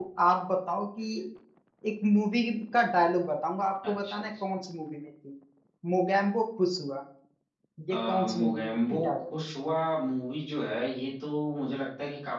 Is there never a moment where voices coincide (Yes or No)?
No